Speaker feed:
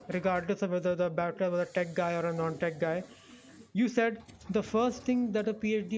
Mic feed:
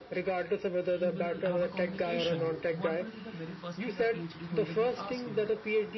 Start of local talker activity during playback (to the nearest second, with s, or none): 1 s